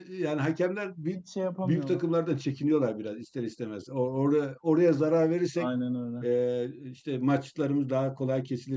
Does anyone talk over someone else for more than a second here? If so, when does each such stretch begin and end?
none

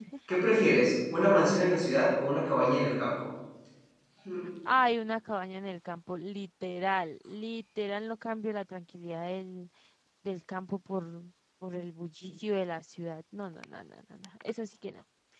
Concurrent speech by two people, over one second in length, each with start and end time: none

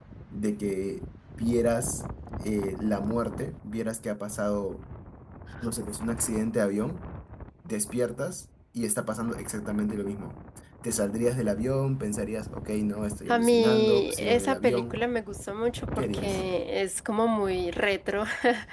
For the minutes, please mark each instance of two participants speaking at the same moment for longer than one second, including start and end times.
13.3-15.0

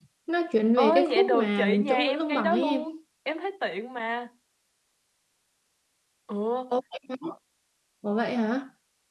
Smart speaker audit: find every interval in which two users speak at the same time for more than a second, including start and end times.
0.8-2.8

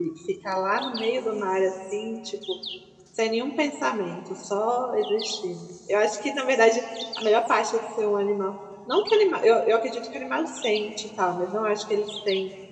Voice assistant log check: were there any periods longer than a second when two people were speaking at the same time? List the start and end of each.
none

